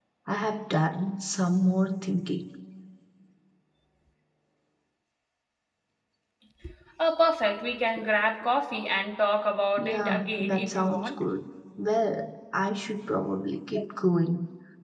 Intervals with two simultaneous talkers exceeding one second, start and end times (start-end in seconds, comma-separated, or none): 9.8-11.2